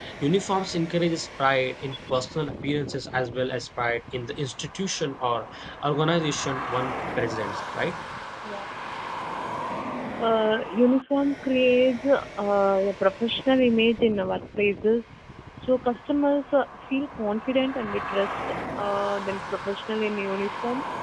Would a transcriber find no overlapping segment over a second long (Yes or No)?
Yes